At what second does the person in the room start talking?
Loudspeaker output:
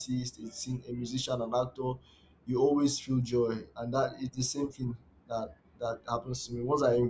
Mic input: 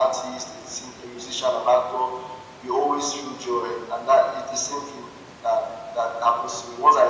none

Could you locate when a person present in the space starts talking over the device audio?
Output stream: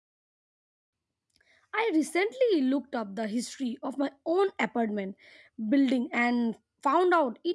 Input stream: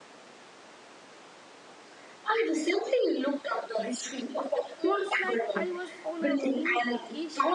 4.5 s

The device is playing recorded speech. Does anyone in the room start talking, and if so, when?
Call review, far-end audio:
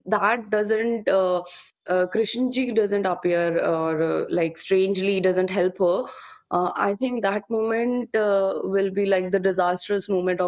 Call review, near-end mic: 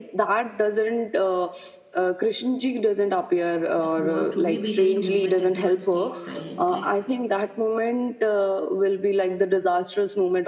3.8 s

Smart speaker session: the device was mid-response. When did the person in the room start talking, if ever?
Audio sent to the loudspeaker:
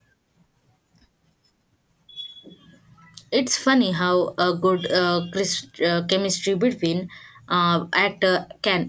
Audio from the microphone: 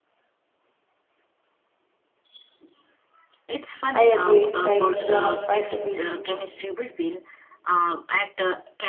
3.9 s

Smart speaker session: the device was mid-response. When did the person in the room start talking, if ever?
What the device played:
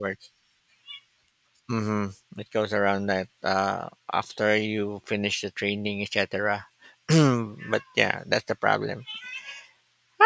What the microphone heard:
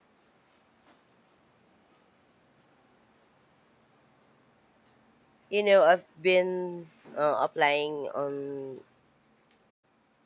5.5 s

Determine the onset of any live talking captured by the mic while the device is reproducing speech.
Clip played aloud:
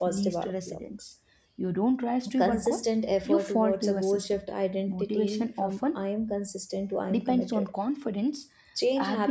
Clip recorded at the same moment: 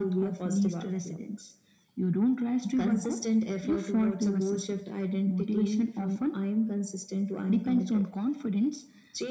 none

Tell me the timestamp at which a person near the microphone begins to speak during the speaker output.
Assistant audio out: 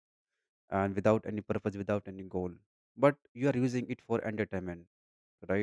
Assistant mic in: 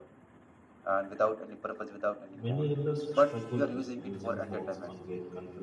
2.4 s

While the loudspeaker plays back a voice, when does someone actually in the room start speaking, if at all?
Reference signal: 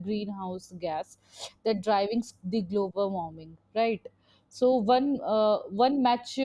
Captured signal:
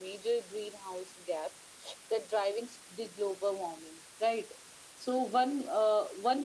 none

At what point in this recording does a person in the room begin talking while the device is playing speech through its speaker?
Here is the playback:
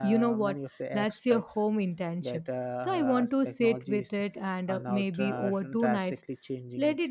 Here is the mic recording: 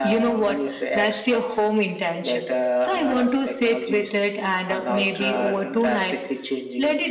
none

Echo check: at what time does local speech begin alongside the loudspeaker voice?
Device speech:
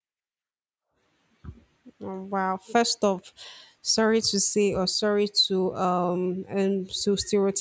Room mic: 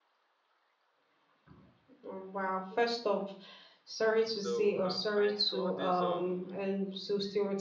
4.3 s

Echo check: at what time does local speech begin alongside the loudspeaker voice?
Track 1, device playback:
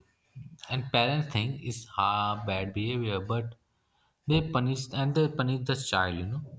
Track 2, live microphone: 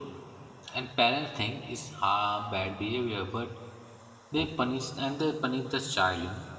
none

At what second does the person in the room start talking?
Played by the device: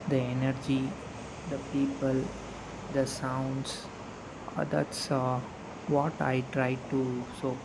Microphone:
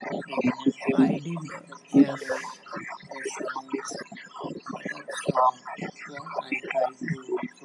0.9 s

